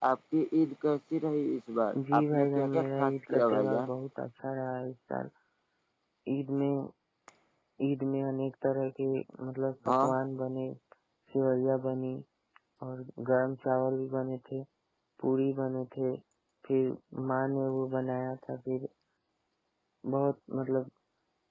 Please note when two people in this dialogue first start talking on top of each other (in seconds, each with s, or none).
1.9 s